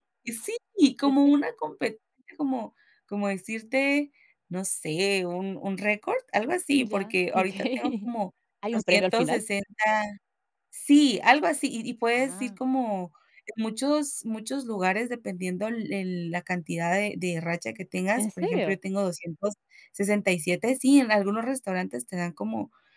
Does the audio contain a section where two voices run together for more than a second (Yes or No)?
Yes